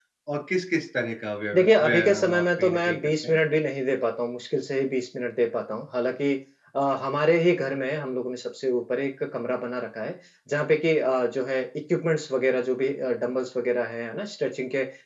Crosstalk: present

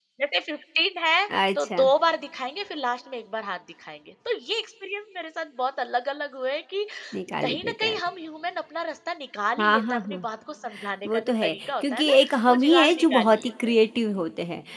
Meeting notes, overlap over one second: present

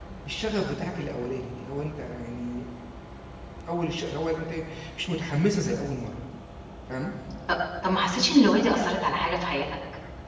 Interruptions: none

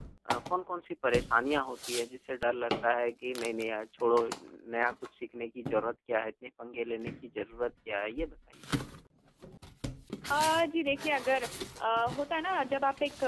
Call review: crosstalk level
none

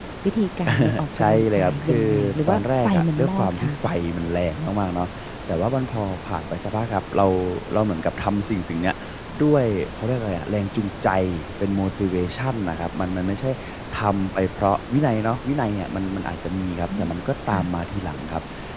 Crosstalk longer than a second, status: present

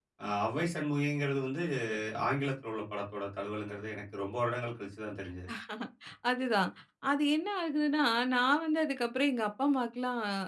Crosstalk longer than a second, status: none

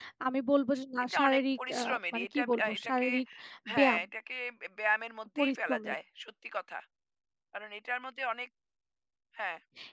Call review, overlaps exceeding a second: present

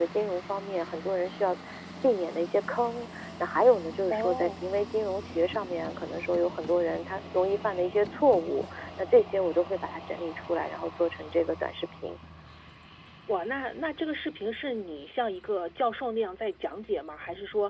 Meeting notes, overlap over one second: none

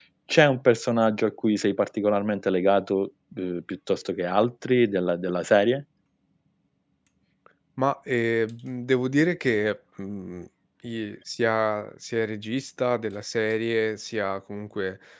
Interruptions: none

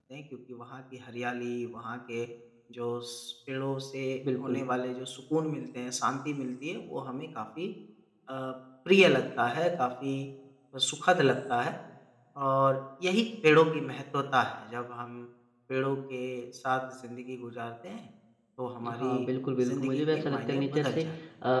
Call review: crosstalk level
present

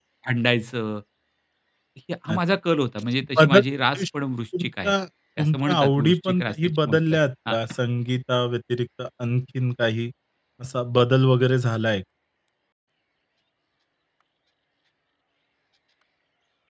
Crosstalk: present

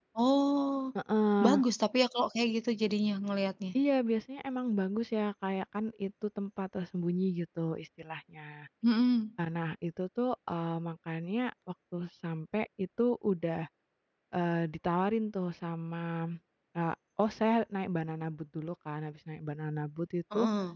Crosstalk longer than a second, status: none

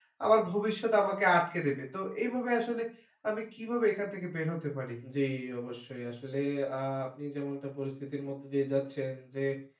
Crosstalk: none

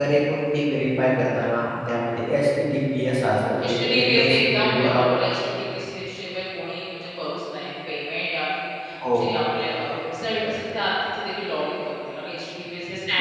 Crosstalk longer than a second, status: present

